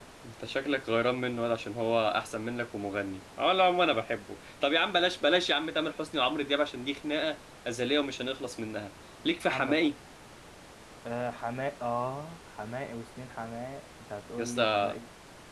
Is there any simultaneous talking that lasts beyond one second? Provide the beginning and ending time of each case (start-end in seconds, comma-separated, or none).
none